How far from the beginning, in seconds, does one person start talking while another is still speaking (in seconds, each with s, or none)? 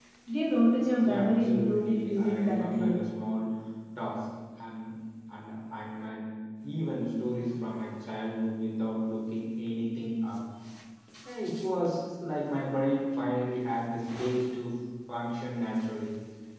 1.0 s